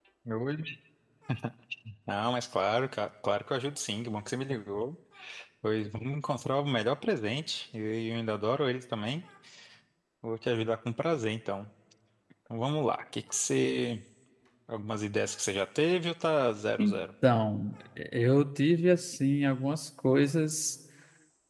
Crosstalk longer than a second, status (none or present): none